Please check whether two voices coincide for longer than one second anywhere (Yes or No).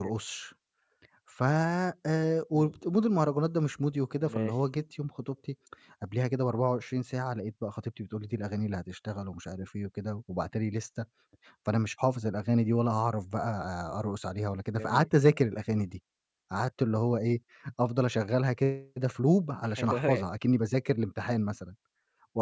No